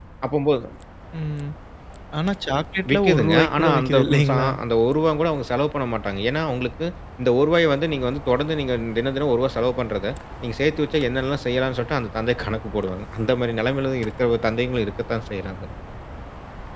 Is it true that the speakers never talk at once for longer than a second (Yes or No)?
No